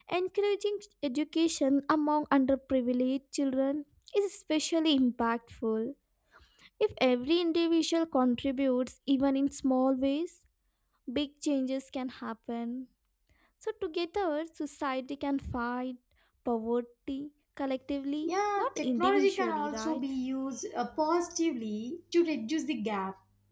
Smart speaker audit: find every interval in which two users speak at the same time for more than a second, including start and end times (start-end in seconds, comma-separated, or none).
18.2-20.0